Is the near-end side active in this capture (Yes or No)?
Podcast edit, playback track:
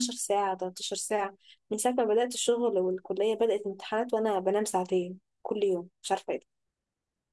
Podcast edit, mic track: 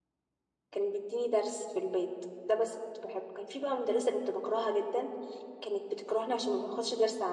Yes